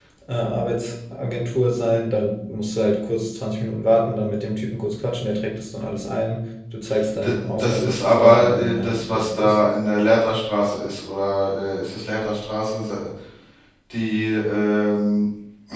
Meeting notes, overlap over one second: present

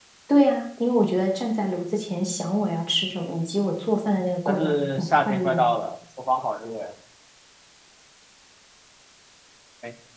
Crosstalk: present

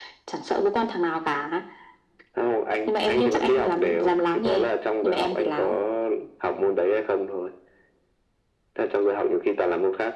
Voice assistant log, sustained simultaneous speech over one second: present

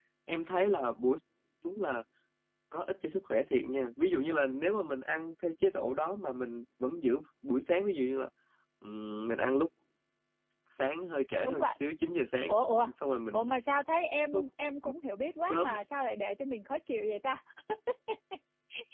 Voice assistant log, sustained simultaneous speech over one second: none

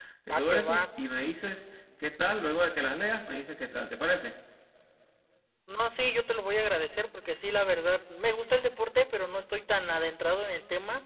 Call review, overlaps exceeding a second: none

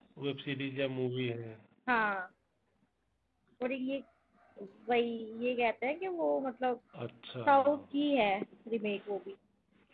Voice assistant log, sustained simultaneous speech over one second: none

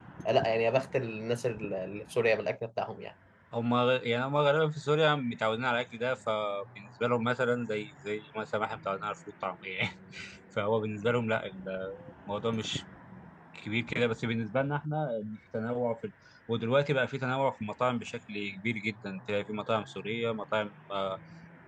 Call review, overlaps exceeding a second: none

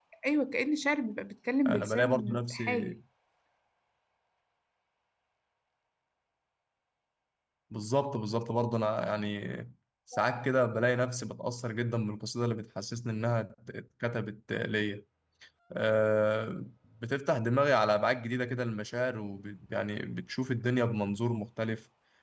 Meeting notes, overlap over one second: present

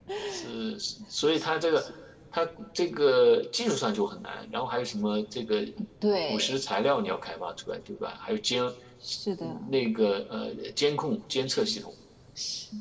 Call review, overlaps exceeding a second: none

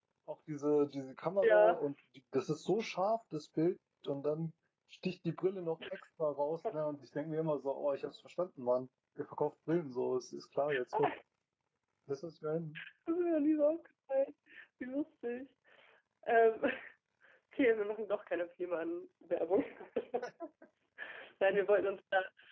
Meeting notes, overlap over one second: none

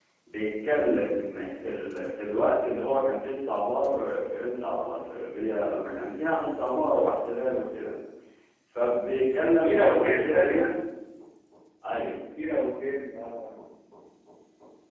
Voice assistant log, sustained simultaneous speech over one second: present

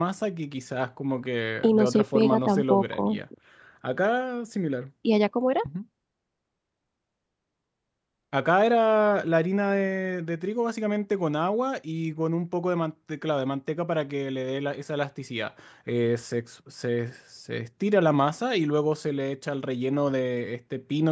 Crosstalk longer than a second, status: present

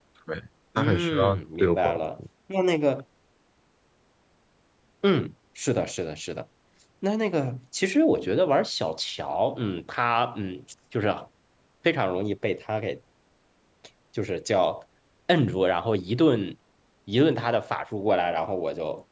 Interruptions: present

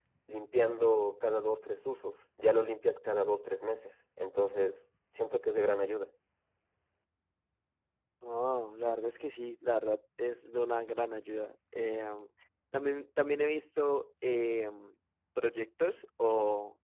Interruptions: none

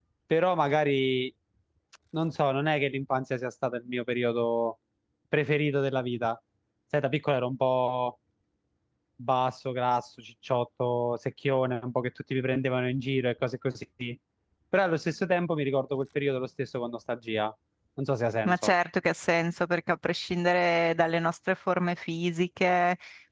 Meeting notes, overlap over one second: none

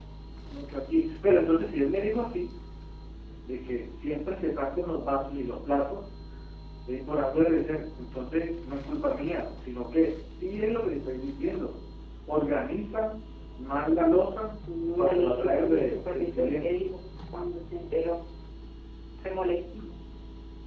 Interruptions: present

